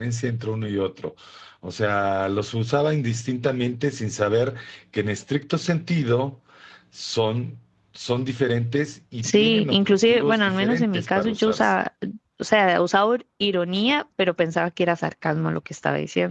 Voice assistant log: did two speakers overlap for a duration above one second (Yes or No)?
Yes